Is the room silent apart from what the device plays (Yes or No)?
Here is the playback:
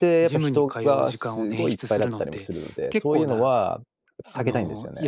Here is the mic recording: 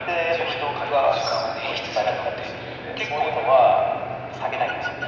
Yes